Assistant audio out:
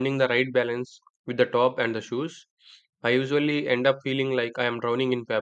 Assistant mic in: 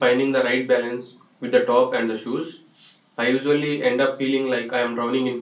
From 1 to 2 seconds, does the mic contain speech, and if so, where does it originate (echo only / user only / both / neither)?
echo only